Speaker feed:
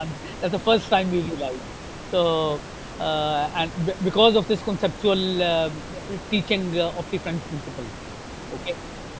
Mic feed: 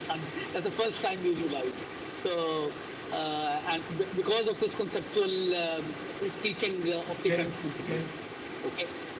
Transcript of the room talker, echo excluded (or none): Okay, okay,